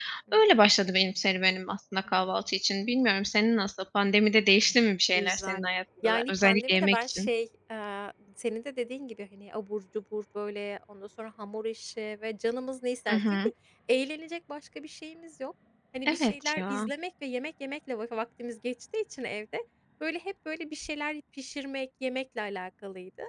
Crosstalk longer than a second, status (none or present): present